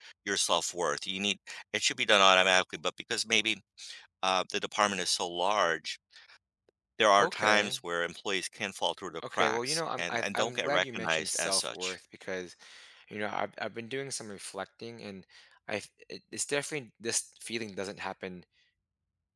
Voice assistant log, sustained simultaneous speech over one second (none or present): present